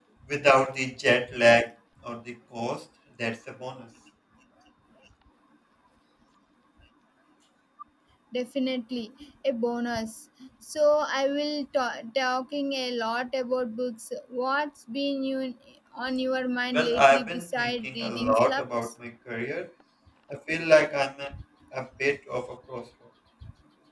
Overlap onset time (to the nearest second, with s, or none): 17 s